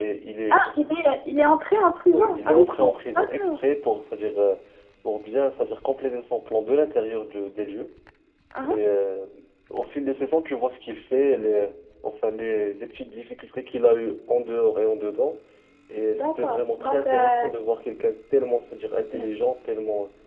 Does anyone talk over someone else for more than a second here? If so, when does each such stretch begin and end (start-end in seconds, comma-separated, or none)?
2.1-3.6, 16.1-17.5